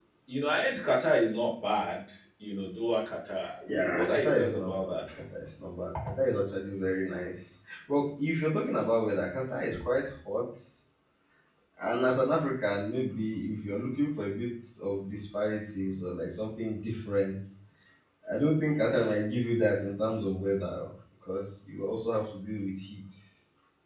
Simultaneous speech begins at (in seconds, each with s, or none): 3.6 s